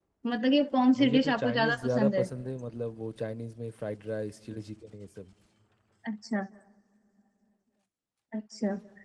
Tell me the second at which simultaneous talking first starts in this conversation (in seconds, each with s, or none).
1.0 s